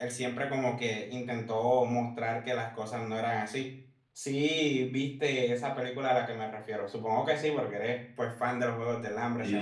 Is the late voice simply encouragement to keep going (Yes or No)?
No